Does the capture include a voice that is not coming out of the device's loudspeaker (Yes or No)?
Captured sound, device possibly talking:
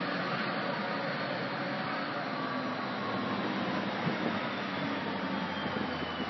No